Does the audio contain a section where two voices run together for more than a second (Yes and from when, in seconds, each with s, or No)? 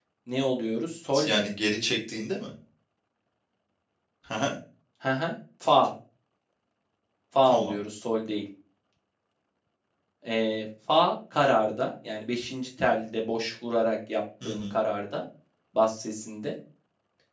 No